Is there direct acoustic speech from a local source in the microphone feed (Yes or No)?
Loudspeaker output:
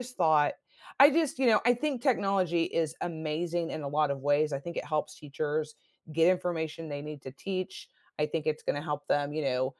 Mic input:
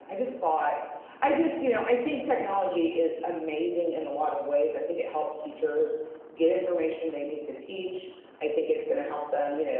No